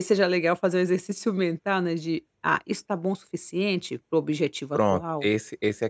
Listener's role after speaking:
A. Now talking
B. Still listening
A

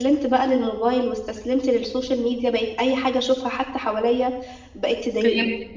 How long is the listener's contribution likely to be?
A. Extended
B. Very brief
B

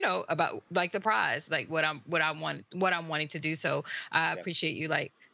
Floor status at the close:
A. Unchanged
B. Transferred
A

